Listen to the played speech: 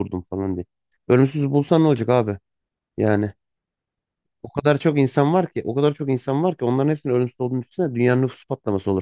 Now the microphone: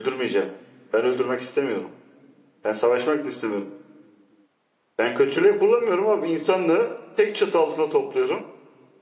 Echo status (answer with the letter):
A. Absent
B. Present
A